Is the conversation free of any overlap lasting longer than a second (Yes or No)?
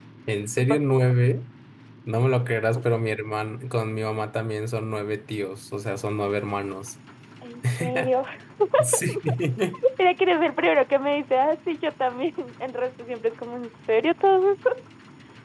Yes